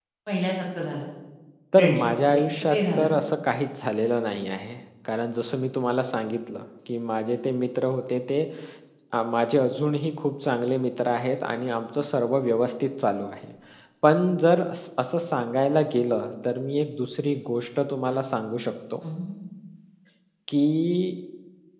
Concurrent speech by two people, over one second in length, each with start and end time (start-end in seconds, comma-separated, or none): 1.8-3.1